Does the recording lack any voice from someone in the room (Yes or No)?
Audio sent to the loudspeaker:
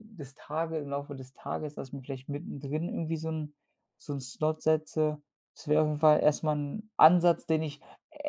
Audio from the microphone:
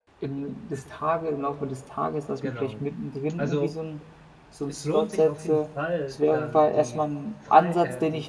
No